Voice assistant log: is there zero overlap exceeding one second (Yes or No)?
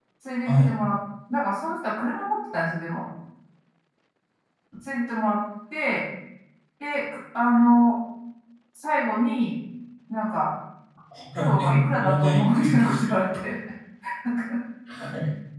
No